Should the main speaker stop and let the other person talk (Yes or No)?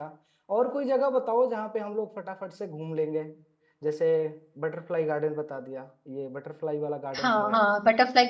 Yes